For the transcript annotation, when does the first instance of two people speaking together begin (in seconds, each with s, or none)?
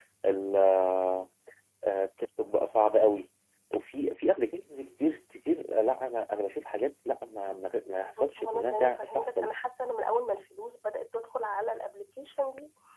8.0 s